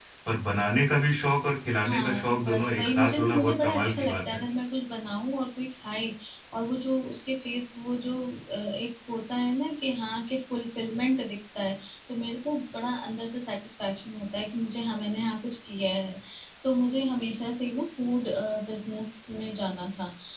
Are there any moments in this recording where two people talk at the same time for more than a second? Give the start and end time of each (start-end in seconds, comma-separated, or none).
1.9-4.3